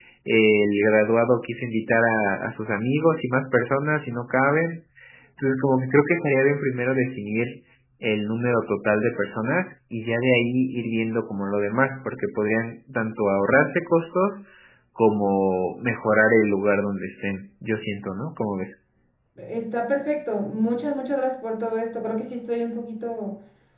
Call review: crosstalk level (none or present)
none